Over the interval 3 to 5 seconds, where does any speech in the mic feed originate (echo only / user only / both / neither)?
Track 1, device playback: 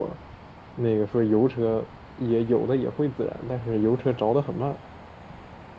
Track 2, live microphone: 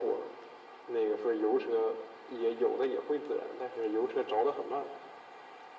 echo only